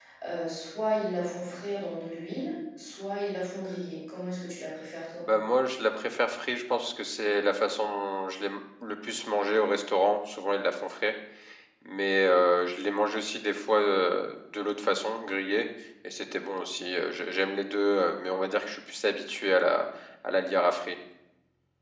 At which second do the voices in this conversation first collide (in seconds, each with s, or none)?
none